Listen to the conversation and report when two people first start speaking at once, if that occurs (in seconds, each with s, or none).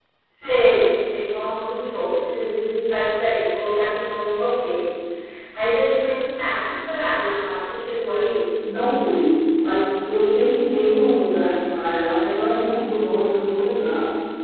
none